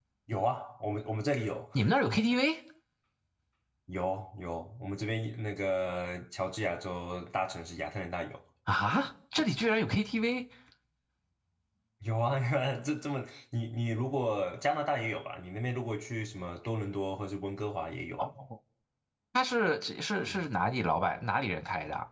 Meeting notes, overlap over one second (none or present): none